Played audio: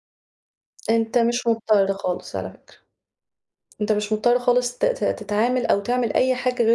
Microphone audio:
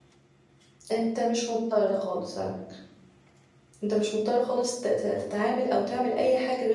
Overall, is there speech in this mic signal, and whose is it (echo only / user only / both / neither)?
echo only